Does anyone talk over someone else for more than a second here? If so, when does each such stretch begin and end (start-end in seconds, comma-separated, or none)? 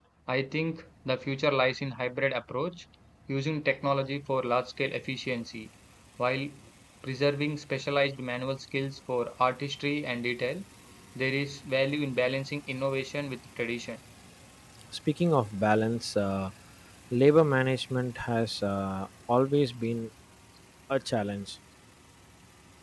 none